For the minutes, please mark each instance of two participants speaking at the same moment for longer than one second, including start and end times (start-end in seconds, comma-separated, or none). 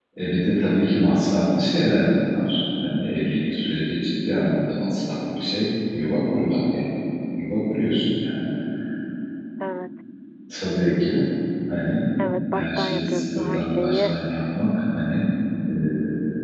12.5-14.1